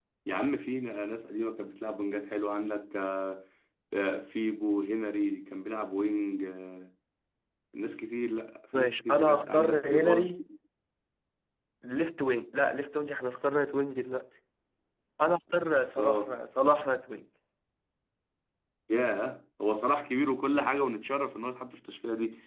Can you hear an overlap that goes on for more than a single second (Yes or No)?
Yes